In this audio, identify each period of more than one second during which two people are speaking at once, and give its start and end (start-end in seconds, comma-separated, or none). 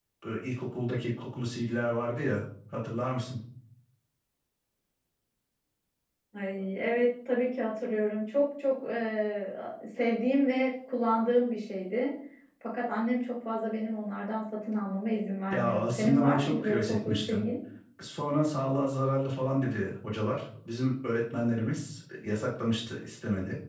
15.5-17.4